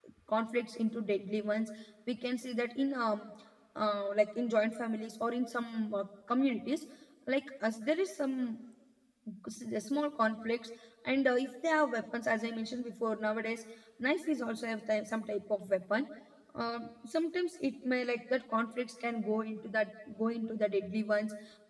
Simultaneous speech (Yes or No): No